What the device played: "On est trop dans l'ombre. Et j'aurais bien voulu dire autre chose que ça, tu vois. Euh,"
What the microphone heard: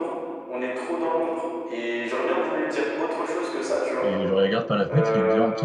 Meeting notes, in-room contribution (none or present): present